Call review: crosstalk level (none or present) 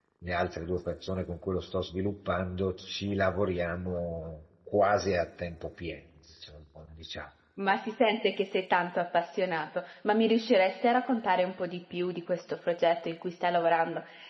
none